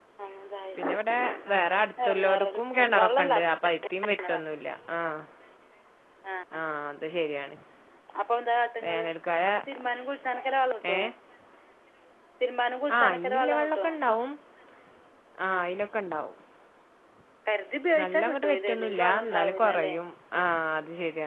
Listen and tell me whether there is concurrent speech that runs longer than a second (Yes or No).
Yes